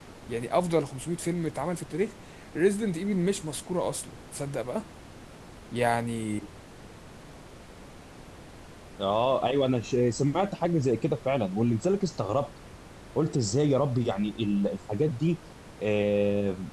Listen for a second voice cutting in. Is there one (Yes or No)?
No